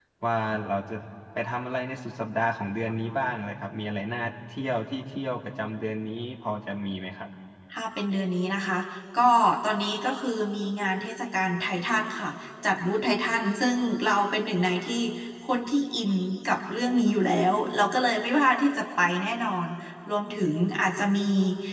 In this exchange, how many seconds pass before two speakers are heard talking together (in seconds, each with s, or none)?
none